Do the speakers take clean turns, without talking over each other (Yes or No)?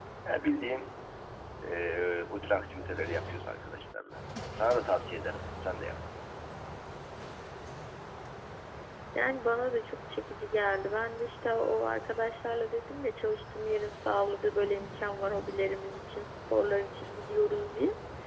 Yes